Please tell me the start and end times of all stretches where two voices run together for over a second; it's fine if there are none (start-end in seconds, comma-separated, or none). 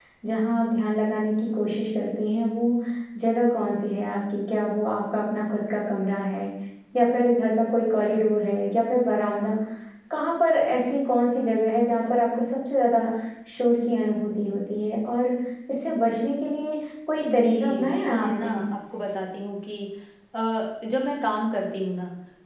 17.3-18.6